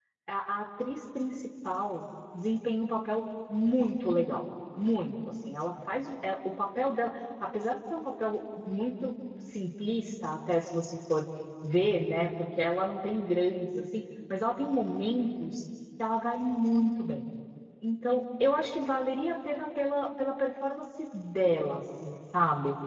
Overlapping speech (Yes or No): No